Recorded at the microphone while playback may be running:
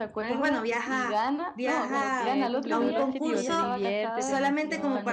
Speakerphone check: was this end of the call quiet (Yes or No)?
No